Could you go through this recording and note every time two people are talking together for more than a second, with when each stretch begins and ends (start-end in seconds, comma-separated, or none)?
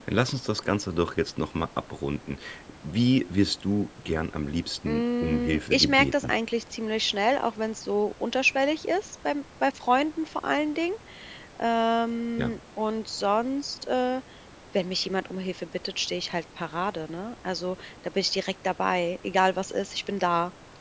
4.9-6.3